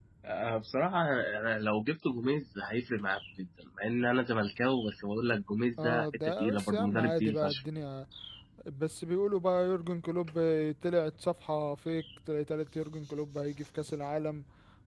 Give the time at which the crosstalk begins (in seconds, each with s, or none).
5.8 s